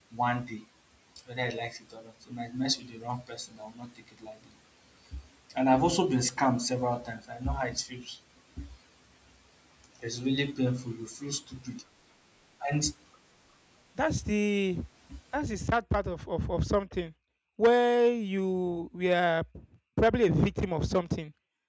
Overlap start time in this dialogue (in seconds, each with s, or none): none